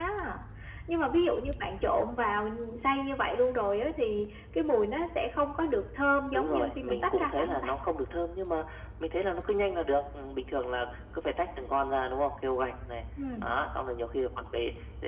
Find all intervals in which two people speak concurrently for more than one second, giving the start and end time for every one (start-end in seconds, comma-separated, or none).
6.3-7.7